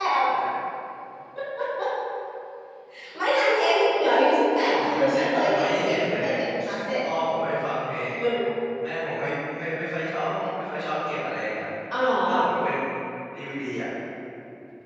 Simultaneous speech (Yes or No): Yes